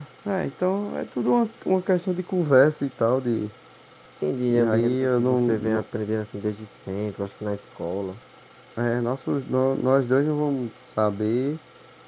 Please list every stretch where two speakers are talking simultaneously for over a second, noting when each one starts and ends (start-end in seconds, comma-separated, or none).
4.5-5.8